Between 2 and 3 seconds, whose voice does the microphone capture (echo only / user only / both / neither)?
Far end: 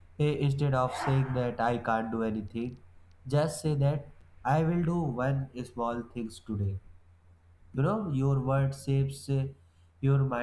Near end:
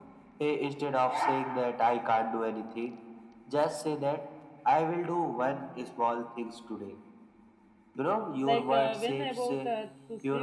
echo only